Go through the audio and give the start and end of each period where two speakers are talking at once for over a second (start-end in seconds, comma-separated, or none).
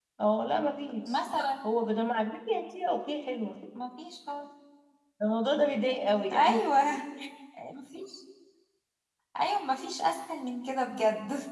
none